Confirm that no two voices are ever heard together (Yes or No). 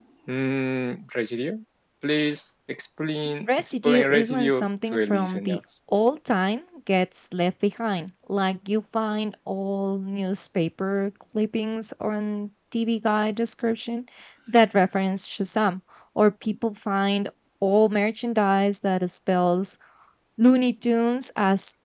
No